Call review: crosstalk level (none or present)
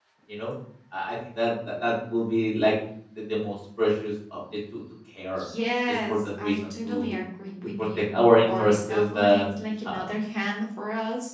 present